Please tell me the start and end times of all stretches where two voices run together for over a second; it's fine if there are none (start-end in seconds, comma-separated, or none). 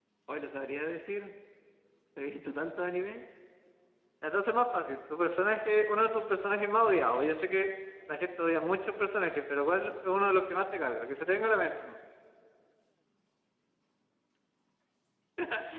none